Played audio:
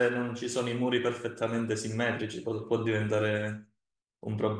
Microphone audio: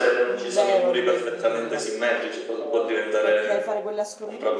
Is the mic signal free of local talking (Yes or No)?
No